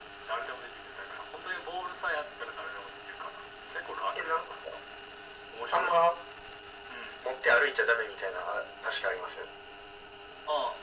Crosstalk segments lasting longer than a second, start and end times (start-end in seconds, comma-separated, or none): none